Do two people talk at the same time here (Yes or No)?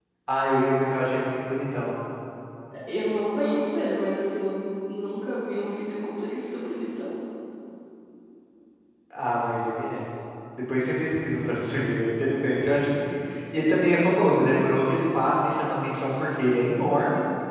No